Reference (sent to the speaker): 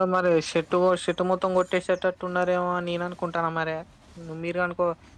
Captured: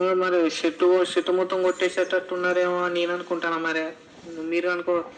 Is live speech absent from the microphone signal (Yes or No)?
Yes